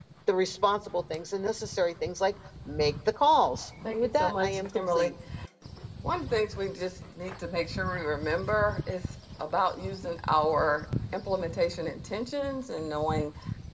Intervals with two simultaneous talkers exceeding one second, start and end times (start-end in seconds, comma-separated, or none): 3.9-5.1